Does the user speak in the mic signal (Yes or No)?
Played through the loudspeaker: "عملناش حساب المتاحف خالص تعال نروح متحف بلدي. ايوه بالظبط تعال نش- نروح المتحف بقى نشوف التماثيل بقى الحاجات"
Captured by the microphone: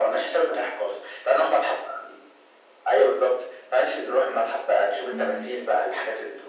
Yes